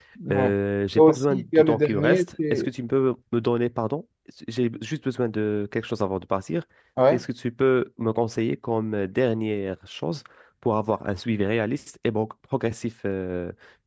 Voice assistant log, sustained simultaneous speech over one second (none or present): present